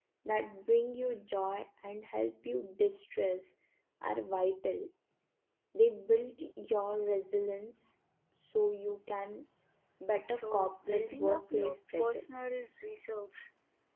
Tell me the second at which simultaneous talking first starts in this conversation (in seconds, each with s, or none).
10.3 s